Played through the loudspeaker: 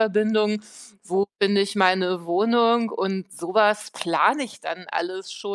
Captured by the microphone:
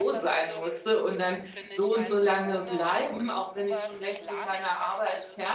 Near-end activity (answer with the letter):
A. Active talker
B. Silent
A